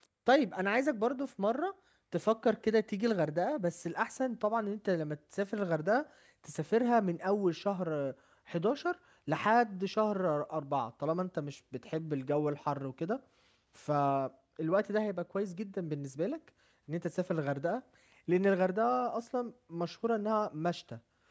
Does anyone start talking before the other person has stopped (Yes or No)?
No